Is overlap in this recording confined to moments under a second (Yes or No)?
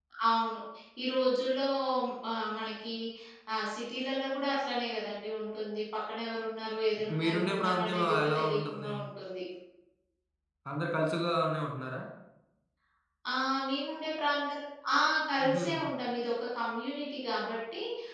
No